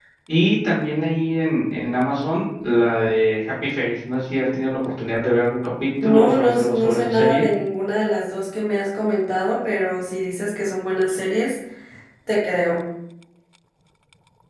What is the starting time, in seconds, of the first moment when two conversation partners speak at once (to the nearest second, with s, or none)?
6 s